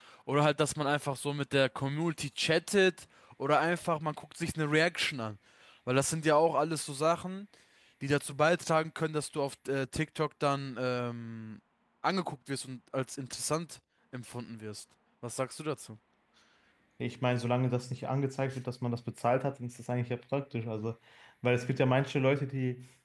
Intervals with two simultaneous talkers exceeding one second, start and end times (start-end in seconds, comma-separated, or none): none